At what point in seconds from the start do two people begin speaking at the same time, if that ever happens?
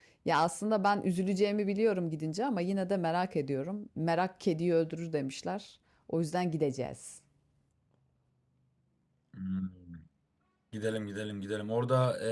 none

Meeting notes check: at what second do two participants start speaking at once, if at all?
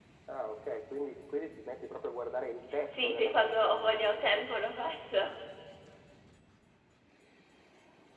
3 s

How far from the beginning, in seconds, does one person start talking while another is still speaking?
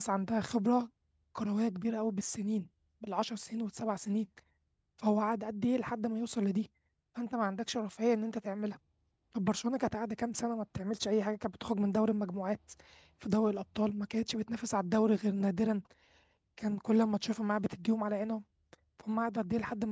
none

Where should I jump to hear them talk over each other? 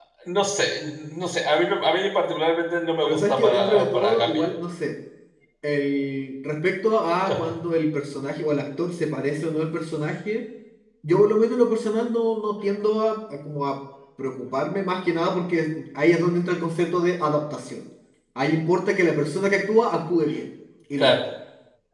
3 s

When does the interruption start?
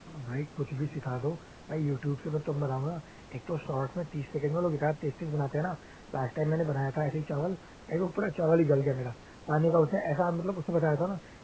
none

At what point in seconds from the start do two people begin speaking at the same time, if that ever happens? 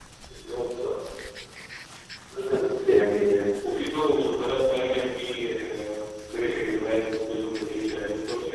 none

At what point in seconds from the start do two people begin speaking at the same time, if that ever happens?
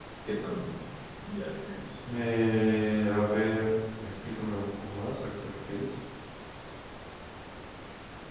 none

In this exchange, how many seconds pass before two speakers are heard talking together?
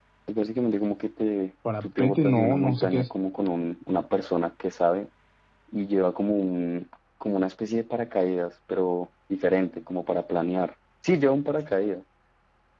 2 s

